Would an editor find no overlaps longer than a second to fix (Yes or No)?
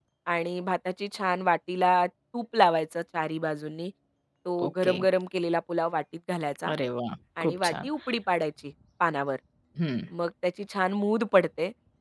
Yes